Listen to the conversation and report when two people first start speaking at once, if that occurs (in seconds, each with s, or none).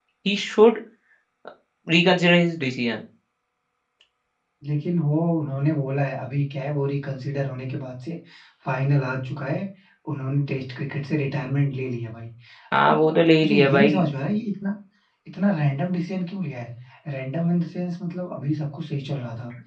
12.8 s